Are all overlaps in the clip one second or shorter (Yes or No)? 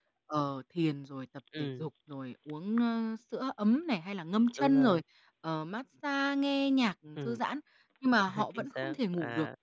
No